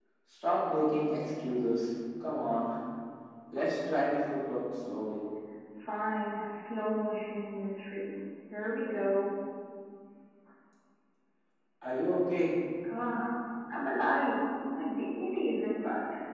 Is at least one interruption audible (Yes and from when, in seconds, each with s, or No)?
No